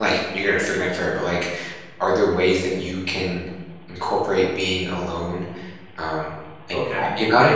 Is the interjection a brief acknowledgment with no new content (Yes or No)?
No